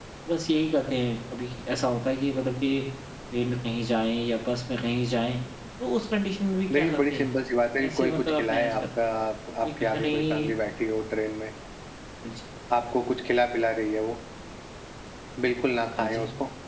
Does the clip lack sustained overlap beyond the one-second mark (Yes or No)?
No